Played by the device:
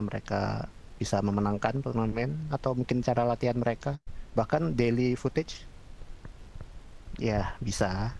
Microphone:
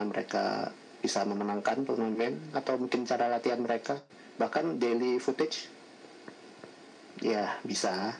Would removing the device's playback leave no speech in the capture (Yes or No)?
Yes